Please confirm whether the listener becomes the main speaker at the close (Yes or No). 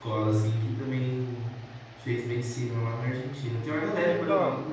Yes